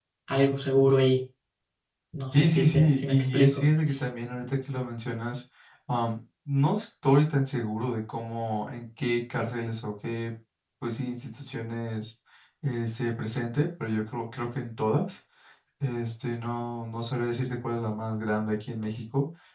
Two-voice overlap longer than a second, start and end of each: 2.3-3.7

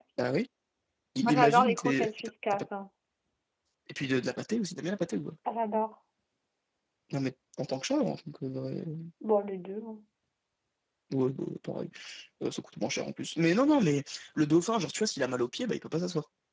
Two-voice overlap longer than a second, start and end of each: 1.3-2.6

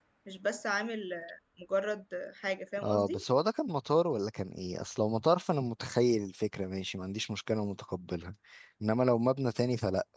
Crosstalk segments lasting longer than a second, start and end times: none

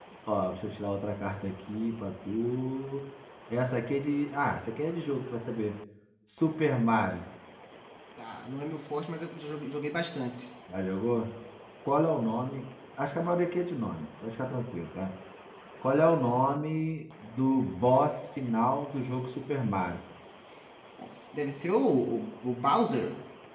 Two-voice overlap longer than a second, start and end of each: none

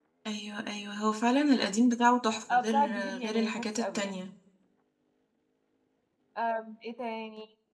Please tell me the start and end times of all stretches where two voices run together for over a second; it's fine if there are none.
2.5-4.2

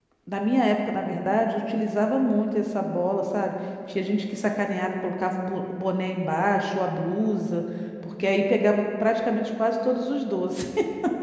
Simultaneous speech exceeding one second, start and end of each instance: none

